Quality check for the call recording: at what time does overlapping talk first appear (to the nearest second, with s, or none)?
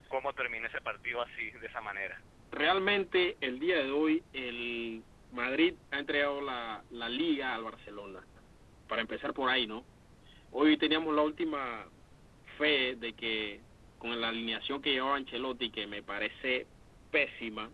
none